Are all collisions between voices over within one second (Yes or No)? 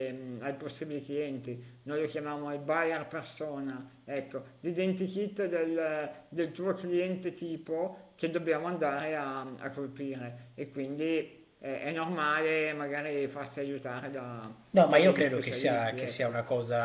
No